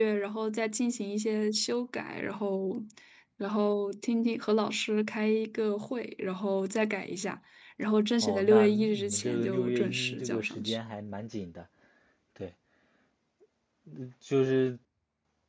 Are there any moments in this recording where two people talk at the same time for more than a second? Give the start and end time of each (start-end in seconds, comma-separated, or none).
8.2-10.8